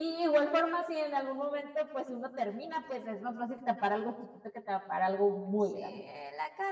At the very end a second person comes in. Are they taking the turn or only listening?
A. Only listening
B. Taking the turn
B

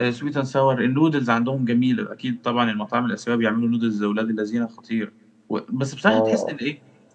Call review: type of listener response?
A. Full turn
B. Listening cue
B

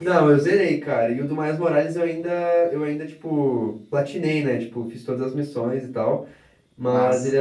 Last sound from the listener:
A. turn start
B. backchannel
B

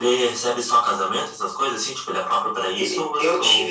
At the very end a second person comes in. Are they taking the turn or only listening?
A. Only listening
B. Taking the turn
B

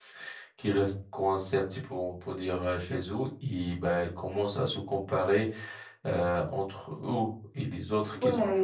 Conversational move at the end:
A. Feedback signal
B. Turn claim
B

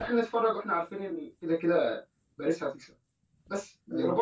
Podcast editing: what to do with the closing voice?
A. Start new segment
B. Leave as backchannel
B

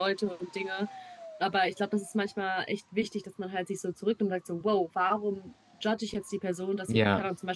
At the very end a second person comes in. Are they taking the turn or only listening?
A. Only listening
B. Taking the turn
A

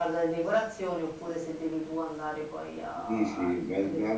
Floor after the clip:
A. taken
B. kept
A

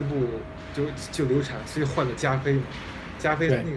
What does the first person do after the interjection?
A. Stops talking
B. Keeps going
B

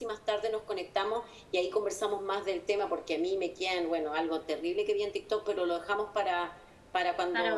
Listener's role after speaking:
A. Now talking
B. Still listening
B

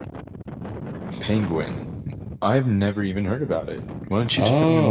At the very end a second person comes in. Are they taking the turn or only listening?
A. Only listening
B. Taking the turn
B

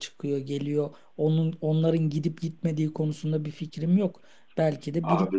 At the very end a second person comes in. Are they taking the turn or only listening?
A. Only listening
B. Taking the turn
A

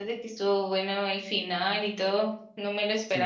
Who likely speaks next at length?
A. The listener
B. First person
A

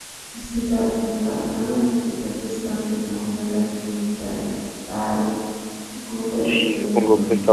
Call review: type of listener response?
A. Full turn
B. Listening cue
A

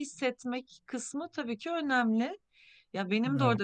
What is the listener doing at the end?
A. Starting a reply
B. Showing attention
B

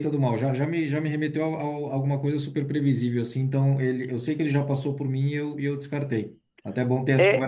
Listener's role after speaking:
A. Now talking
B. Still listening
A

